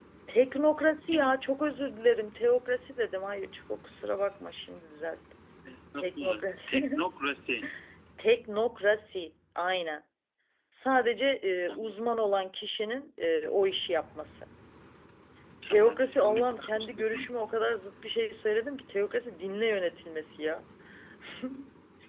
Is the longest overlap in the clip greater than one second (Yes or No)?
Yes